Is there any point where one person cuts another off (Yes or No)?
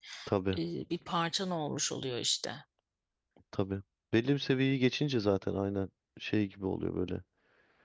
No